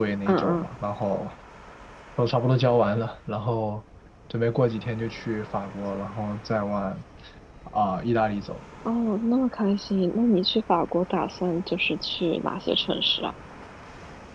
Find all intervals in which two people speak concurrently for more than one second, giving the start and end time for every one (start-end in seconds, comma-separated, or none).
none